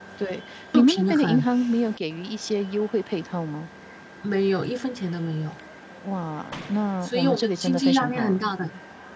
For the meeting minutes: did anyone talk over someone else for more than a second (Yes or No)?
Yes